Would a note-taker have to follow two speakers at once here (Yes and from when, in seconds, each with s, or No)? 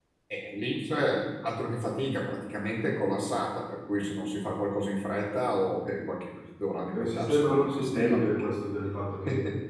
Yes, from 6.9 s